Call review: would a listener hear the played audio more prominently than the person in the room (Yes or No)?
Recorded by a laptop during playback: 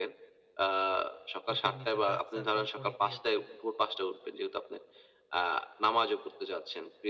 Yes